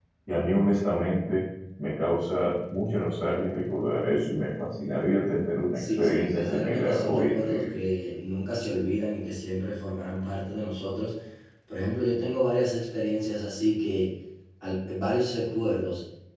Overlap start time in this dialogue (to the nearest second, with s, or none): 6 s